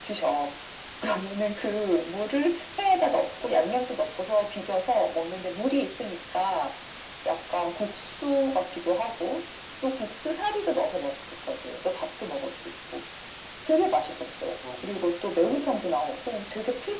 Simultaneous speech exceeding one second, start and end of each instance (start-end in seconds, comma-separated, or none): 14.8-16.1